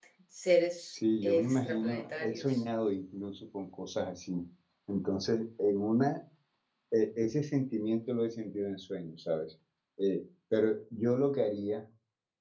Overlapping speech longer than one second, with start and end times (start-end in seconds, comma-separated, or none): 0.9-2.6